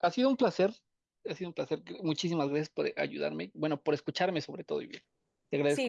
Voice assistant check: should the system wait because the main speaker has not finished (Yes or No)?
No